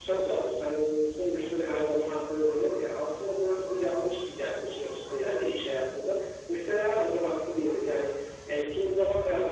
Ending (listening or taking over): listening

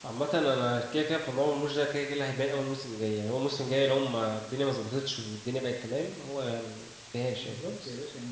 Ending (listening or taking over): taking over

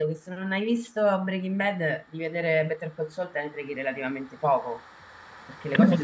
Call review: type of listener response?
taking over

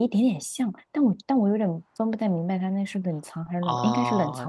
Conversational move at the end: taking over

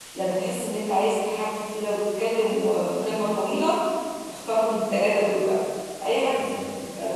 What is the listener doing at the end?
listening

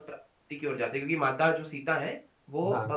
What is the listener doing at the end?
listening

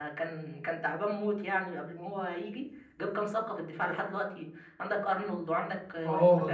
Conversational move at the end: taking over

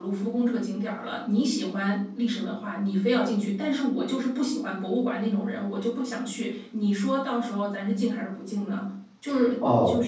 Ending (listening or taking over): taking over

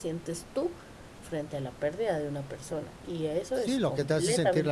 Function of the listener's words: taking over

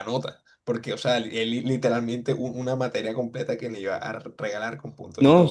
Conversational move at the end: taking over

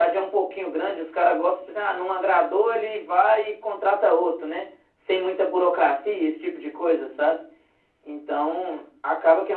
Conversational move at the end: listening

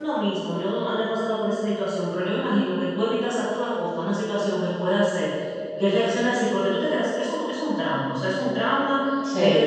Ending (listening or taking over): listening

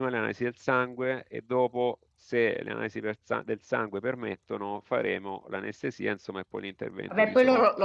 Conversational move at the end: taking over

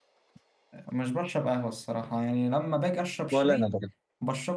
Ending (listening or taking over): listening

